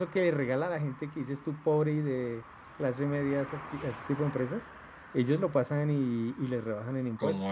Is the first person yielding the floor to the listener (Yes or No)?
Yes